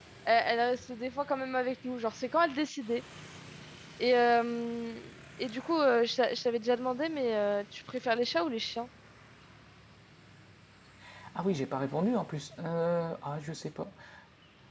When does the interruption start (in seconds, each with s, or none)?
none